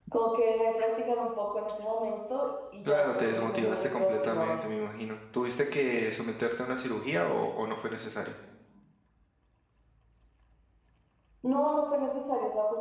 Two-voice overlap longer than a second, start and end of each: 2.9-4.7

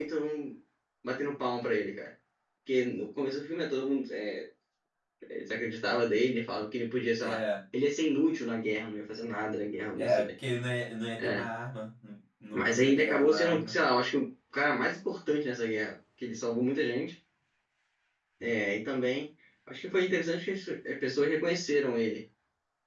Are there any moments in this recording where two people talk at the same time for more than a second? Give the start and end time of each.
12.5-13.8

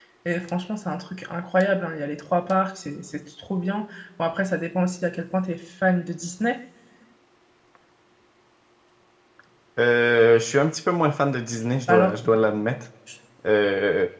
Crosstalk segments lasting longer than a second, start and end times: none

